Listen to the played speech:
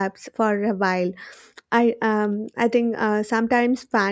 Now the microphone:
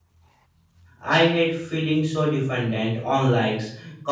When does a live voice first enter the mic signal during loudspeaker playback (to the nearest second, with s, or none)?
1 s